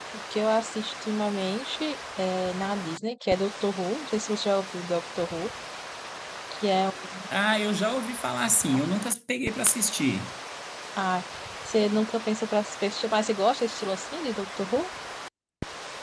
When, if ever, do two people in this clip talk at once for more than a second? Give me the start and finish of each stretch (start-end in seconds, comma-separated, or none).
none